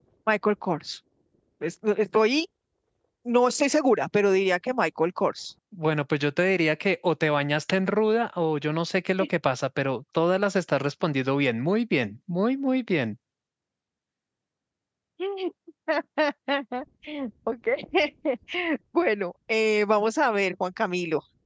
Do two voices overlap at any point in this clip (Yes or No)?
No